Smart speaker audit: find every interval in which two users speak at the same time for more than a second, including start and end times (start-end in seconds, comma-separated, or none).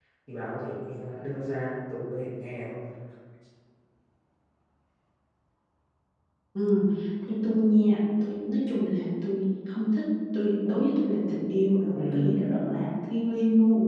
none